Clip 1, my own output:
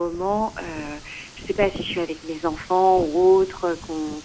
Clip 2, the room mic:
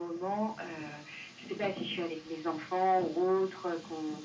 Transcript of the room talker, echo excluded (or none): none